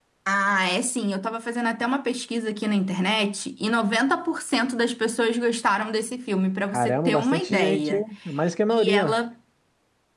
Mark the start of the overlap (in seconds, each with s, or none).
6.7 s